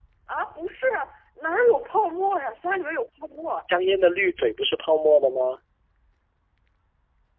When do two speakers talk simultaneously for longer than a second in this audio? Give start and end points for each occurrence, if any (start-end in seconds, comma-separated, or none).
none